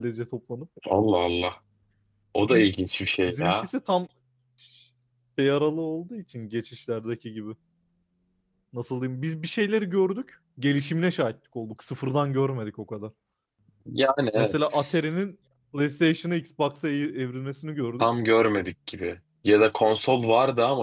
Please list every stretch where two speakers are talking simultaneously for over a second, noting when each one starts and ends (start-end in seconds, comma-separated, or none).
none